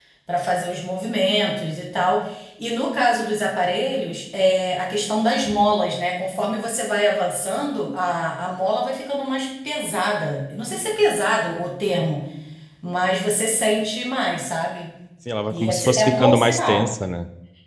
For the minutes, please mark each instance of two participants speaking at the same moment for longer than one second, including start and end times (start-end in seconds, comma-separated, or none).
15.5-16.9